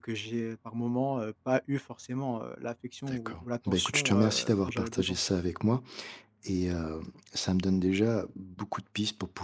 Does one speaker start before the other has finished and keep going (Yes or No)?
Yes